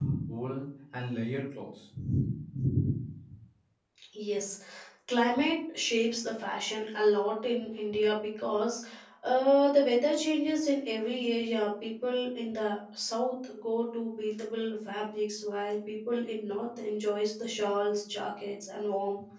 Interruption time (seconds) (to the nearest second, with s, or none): none